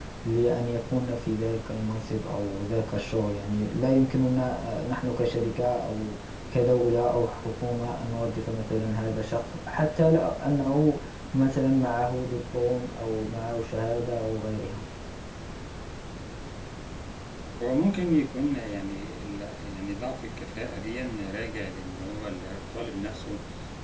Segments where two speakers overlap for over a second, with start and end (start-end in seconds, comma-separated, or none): none